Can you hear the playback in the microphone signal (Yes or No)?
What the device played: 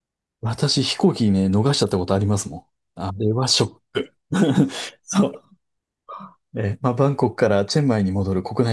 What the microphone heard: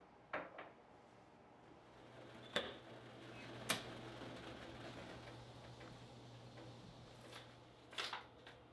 No